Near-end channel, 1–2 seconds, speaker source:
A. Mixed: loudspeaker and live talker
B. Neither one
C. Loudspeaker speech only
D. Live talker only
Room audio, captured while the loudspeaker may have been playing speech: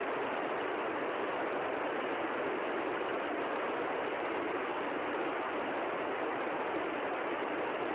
B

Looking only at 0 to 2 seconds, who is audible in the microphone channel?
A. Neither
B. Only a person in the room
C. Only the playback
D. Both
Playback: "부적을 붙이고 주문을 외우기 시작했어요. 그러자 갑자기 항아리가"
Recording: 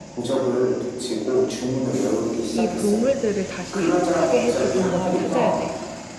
C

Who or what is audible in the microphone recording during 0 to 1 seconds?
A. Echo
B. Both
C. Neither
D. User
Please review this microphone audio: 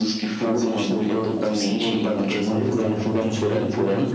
A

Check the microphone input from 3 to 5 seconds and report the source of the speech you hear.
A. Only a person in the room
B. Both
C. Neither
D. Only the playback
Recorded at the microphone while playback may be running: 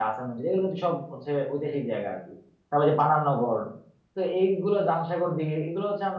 A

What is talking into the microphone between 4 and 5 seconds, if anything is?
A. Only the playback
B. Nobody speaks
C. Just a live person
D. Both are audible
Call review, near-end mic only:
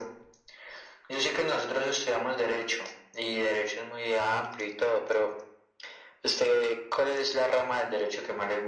A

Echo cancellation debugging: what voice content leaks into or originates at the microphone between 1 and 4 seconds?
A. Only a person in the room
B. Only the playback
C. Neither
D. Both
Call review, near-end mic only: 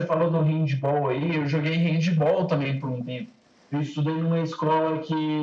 B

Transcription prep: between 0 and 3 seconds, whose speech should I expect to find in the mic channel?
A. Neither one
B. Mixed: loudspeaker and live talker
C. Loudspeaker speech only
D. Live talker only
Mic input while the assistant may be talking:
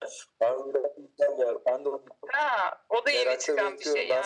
C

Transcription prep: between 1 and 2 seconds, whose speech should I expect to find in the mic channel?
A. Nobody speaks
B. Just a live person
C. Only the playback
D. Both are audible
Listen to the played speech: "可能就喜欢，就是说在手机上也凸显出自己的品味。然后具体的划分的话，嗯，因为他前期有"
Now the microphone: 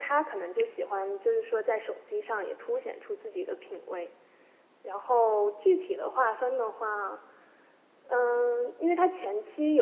C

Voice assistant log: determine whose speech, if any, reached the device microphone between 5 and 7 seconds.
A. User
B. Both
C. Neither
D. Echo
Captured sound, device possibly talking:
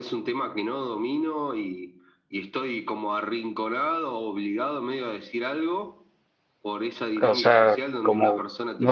D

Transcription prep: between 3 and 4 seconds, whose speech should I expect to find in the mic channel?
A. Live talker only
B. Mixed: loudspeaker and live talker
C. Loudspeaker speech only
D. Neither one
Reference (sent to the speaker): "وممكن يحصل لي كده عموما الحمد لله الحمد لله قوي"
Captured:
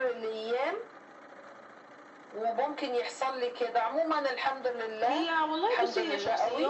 C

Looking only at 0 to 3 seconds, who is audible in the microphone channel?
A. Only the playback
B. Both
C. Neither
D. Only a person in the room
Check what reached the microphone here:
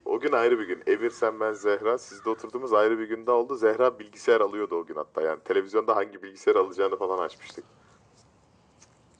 A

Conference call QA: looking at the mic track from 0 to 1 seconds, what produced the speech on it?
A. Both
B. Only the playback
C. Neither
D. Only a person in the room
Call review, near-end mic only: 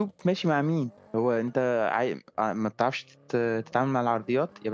D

